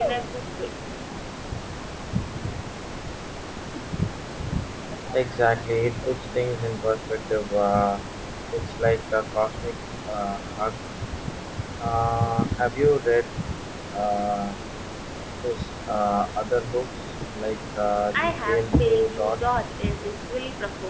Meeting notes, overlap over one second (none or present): present